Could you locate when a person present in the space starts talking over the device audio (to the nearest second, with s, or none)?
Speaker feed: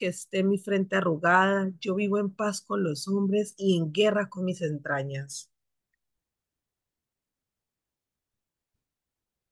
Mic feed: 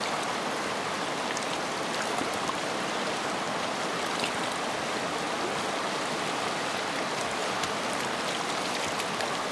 none